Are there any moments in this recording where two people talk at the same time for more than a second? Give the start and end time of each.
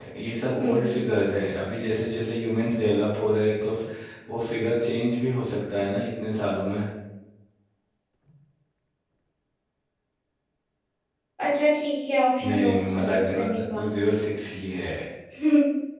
12.4-14.0

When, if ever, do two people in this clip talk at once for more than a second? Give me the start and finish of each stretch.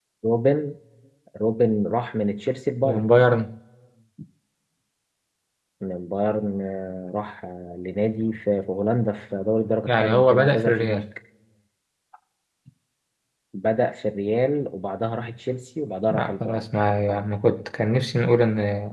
9.9-11.1

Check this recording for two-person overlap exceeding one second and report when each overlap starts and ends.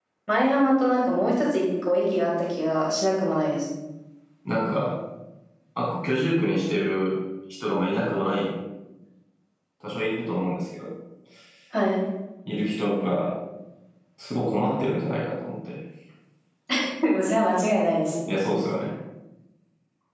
none

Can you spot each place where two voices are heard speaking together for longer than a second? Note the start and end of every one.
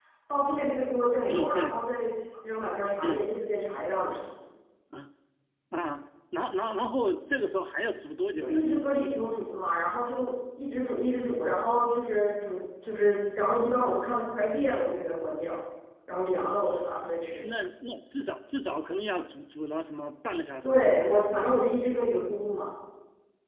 none

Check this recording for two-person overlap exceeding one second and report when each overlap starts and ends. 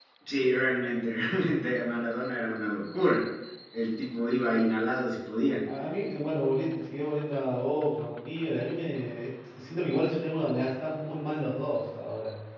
none

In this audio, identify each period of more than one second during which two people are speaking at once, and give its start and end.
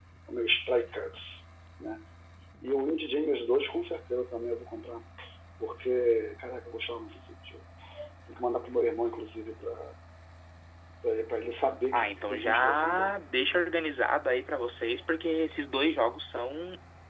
11.9-13.1

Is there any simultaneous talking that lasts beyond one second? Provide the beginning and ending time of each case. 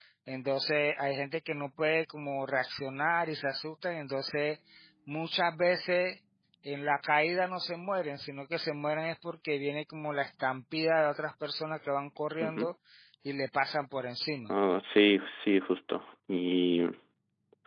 none

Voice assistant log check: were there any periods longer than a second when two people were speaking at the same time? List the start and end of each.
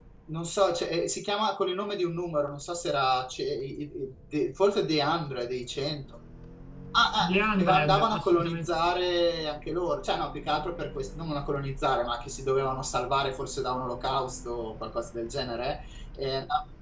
7.2-8.9

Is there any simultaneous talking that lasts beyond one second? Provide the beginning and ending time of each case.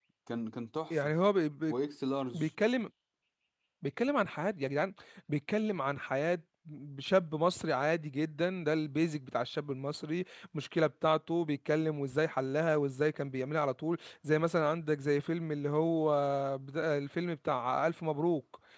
none

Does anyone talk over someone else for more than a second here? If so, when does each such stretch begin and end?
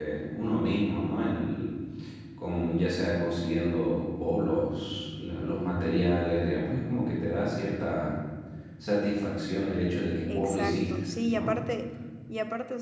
10.3-11.5

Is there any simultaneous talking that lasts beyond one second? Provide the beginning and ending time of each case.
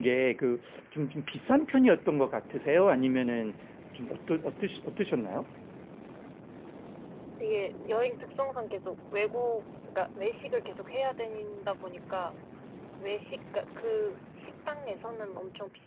none

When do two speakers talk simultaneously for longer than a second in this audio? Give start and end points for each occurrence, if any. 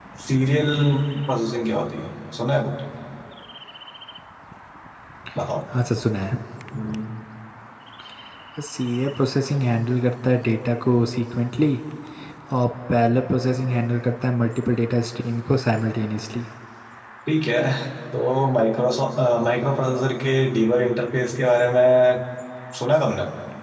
none

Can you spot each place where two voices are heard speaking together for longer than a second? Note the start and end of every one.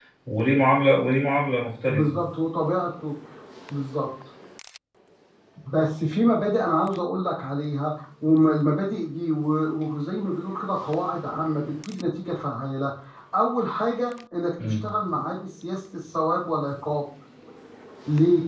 none

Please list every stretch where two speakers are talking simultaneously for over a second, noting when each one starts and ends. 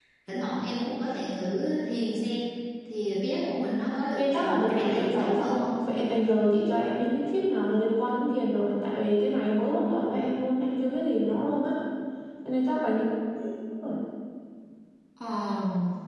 4.2-5.6

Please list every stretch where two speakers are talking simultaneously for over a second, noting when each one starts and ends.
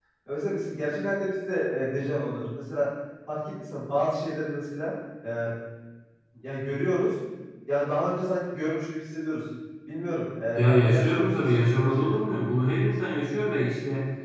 10.6-12.2

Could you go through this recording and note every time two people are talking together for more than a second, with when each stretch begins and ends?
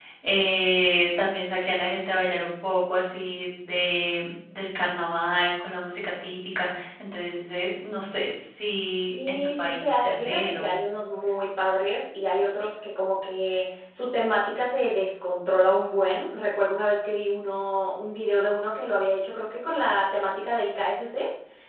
9.1-10.7

